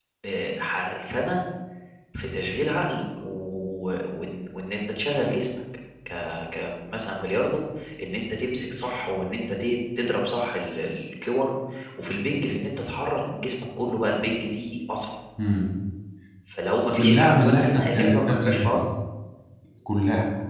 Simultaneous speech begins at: 17 s

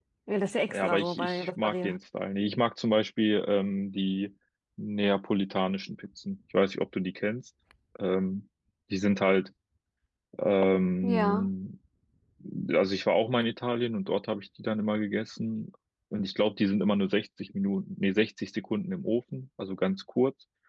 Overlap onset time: 1 s

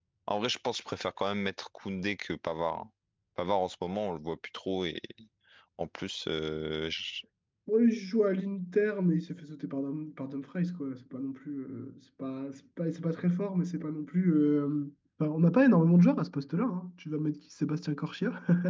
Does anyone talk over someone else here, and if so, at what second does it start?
none

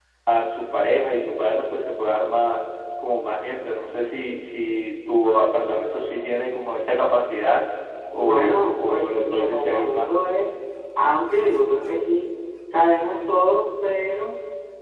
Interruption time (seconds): 8 s

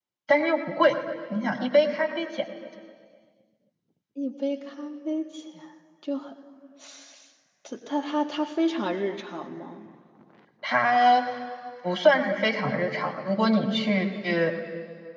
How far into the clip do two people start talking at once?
none

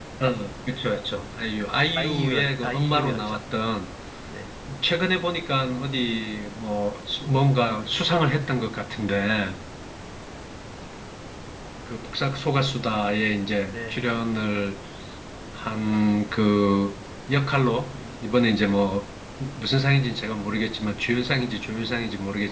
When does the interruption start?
2 s

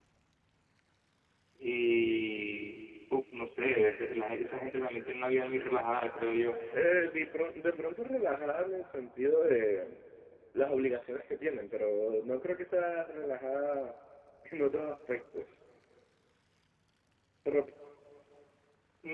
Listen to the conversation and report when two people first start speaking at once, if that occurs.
none

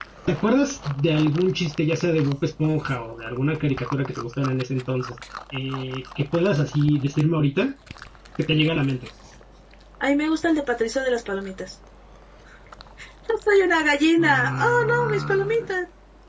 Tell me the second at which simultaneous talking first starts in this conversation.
14 s

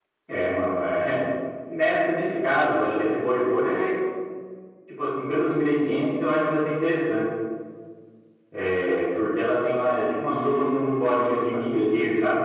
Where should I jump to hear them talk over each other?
10 s

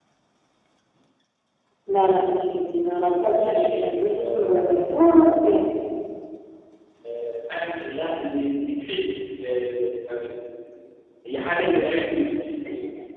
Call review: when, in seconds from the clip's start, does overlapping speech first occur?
3 s

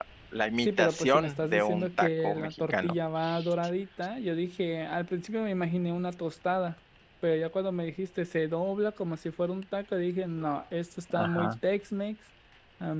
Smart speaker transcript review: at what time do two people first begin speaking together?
1 s

